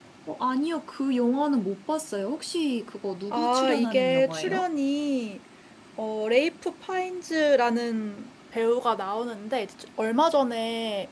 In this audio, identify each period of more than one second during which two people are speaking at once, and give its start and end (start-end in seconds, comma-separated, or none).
3.3-4.6